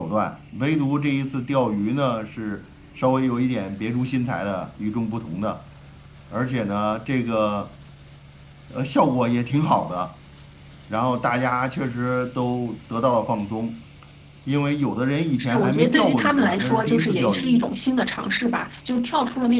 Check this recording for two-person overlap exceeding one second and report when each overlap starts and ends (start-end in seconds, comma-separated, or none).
15.4-17.6